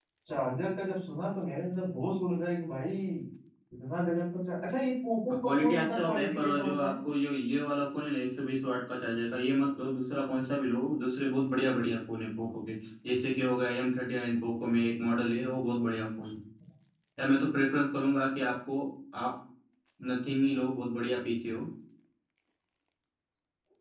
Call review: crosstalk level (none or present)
present